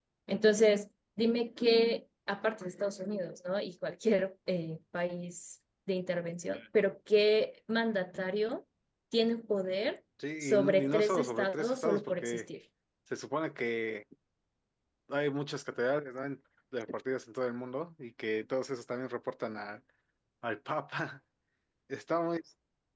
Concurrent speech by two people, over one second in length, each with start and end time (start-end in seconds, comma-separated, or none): 10.4-12.4